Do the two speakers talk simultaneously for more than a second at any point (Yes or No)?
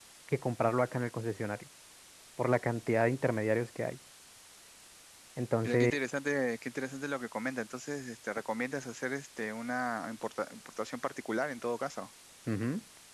No